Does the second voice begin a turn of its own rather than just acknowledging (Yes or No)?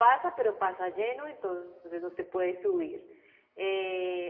No